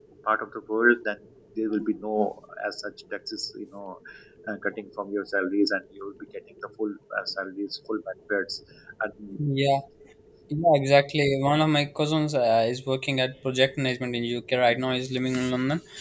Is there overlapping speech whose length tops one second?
No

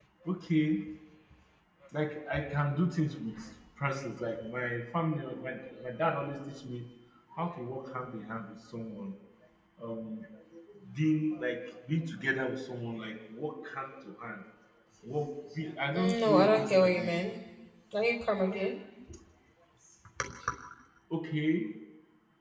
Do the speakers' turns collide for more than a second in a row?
Yes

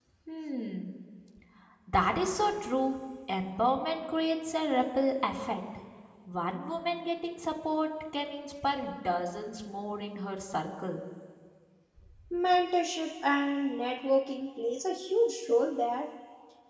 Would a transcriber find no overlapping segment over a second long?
Yes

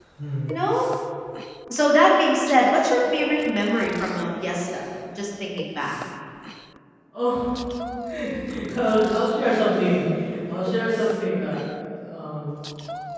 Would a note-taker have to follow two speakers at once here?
No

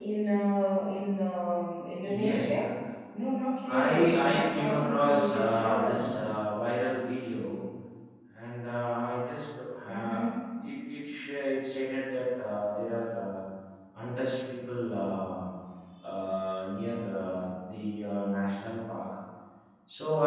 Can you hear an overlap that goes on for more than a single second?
Yes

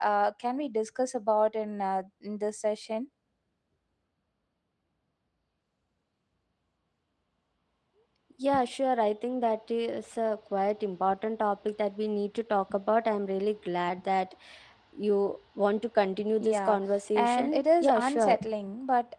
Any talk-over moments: Yes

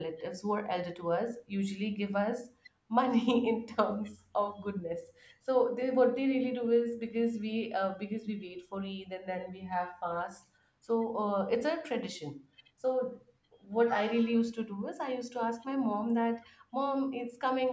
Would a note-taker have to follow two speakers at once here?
No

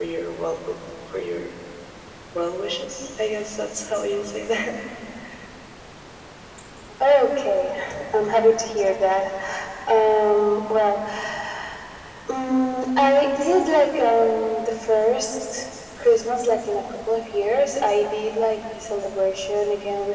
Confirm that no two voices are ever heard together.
Yes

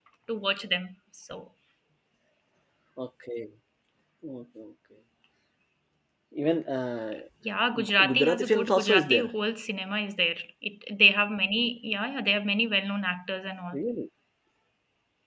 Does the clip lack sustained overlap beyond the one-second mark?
No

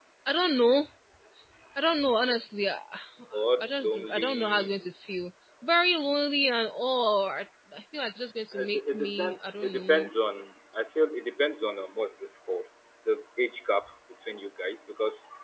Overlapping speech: Yes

